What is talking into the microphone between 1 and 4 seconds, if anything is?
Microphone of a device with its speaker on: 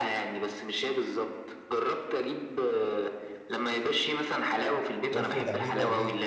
echo only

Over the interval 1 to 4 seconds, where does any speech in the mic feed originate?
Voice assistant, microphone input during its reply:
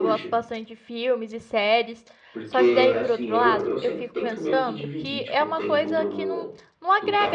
both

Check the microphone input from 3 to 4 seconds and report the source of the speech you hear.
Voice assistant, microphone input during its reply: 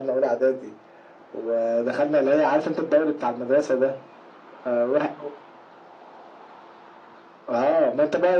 echo only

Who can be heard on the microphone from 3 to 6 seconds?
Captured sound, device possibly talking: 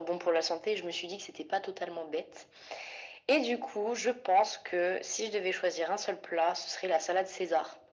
echo only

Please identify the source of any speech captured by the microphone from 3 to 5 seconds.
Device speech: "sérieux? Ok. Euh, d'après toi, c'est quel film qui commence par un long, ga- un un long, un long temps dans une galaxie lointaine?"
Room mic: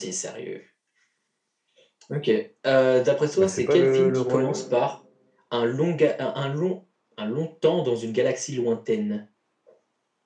both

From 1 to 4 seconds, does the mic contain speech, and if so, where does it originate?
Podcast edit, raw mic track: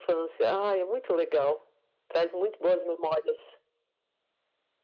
echo only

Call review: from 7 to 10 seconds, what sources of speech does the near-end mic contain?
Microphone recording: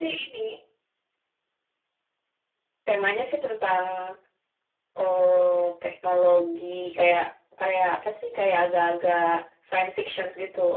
echo only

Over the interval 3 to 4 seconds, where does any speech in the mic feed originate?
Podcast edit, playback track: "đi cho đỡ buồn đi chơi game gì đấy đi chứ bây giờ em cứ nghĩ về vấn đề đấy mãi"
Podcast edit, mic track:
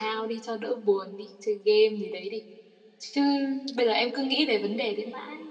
echo only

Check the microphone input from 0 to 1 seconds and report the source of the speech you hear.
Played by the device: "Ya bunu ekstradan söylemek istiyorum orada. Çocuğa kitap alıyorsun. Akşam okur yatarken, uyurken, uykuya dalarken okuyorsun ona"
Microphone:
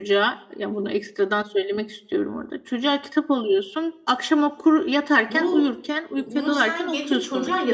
echo only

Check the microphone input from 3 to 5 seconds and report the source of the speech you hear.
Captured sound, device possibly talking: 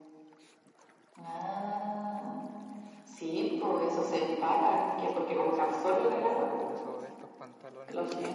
both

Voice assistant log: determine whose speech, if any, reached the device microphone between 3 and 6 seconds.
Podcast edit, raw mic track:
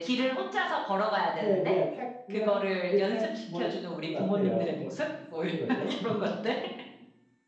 both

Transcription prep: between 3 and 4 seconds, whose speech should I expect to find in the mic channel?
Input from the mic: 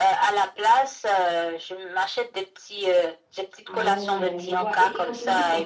both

